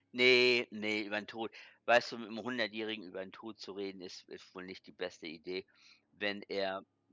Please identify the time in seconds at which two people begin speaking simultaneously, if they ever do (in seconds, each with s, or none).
none